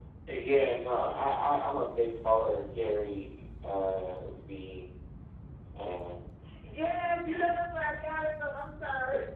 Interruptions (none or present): none